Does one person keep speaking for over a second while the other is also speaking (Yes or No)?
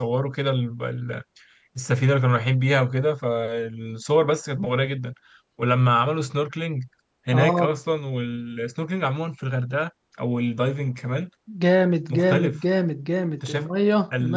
No